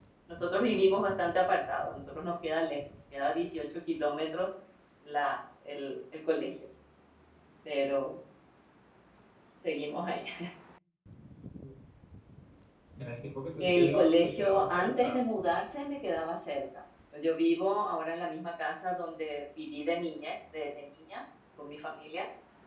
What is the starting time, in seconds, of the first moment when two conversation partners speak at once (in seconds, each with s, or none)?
13.6 s